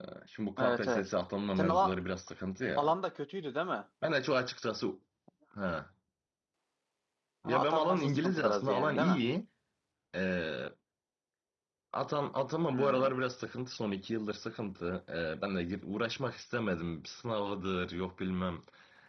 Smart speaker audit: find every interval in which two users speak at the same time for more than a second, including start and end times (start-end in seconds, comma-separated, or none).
7.4-9.2